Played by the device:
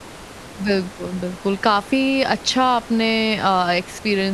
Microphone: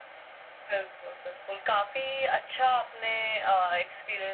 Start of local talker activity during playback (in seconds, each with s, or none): none